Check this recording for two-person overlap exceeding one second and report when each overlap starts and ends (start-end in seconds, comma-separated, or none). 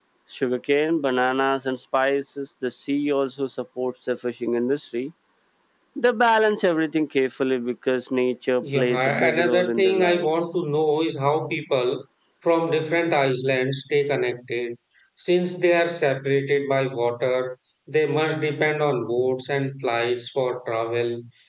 8.6-10.2